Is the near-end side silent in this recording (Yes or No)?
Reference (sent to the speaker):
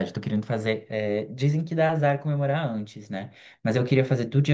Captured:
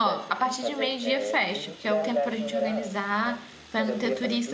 No